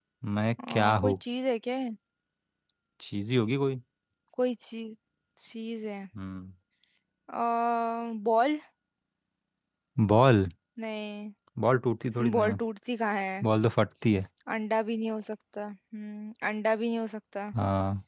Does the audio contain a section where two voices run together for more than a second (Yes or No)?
No